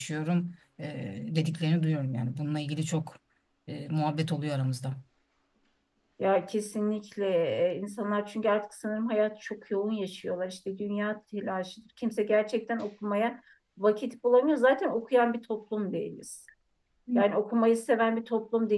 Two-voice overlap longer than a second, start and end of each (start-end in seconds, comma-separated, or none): none